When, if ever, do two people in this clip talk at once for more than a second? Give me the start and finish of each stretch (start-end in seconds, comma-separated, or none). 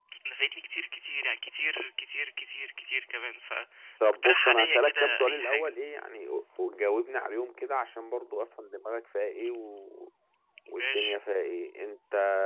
4.2-5.7